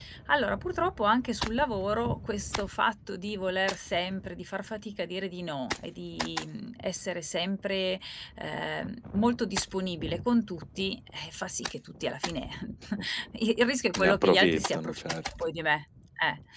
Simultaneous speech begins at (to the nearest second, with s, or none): 14 s